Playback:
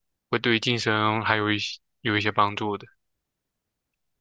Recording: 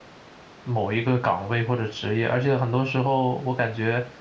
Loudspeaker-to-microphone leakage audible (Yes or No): No